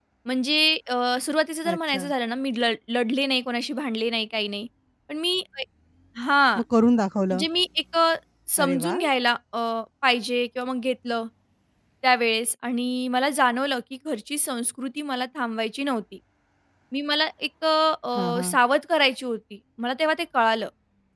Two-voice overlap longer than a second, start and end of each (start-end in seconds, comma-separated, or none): none